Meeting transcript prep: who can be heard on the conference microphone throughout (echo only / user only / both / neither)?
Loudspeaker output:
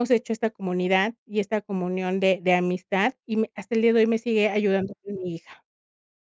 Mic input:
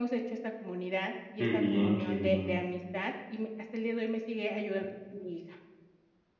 both